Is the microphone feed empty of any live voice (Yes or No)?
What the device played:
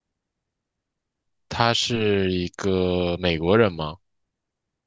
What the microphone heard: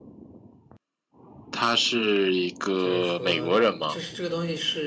No